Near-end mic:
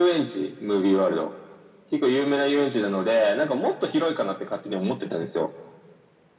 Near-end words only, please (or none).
none